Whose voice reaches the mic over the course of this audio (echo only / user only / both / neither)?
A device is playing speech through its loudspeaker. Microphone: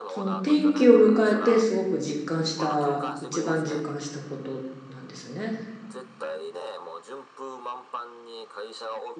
both